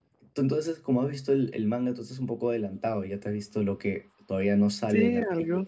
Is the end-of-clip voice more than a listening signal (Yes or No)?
Yes